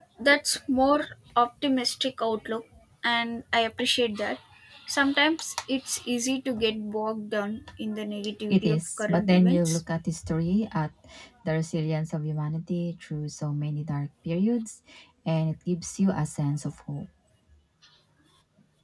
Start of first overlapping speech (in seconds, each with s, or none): 8.5 s